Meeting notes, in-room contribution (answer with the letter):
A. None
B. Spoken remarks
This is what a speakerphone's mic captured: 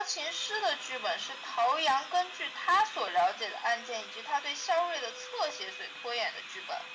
A